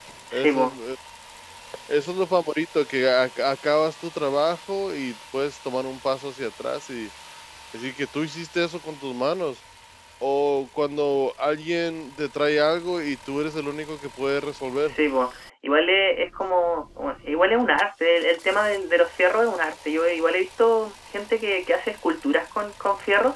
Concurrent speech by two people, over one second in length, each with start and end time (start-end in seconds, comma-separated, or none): none